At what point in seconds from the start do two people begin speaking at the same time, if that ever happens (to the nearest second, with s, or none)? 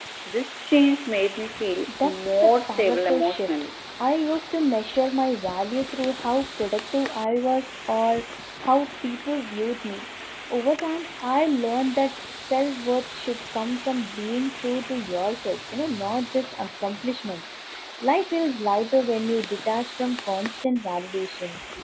2 s